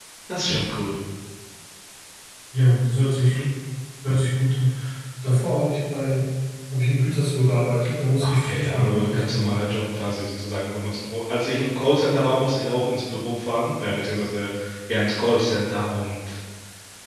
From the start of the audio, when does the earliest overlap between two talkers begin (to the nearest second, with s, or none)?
8 s